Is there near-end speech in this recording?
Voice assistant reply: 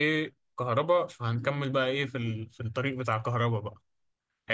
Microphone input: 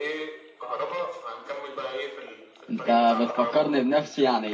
Yes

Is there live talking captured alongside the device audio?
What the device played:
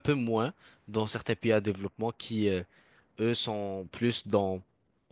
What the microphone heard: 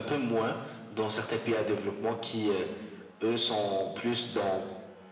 No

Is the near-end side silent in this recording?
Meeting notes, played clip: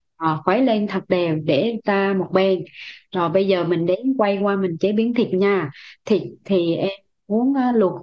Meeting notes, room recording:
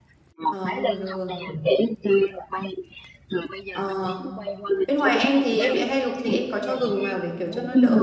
No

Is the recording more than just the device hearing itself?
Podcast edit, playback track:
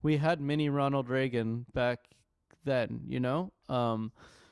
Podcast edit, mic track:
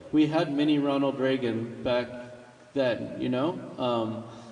No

